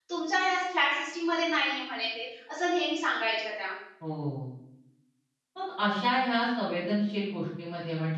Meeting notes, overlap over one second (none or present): none